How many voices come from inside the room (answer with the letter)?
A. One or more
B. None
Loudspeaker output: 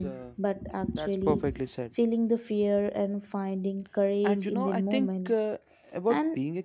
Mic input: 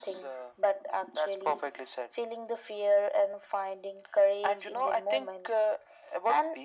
B